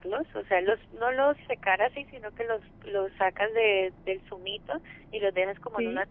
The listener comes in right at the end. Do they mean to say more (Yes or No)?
No